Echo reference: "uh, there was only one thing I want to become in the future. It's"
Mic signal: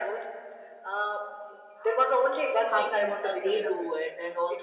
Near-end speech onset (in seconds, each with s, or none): 2.6 s